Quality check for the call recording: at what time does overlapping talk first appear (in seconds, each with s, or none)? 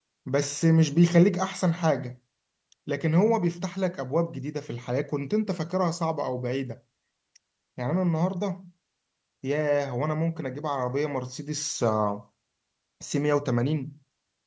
none